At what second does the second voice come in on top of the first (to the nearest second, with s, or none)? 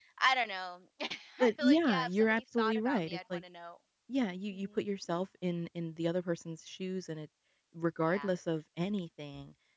1 s